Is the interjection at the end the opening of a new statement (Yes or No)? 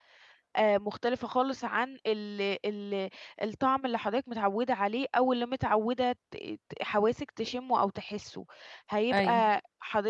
No